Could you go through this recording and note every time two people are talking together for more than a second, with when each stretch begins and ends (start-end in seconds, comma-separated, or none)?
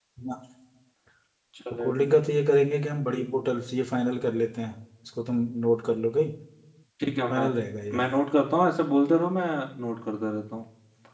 none